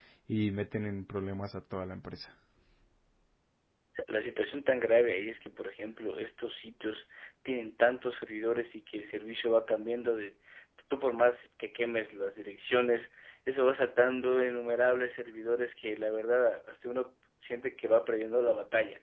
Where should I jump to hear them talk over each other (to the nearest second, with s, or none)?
none